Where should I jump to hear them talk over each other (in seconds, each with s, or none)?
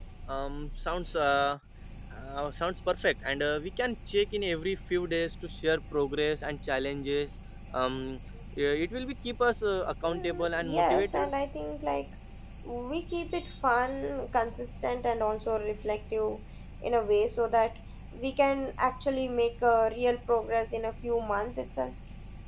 10.0 s